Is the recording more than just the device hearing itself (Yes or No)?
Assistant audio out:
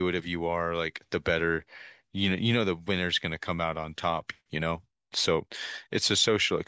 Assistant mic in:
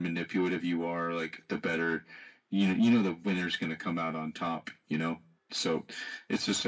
No